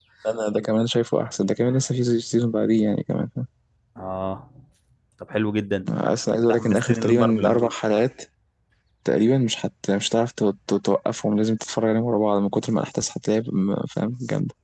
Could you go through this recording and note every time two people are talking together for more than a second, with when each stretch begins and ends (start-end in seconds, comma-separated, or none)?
6.3-7.7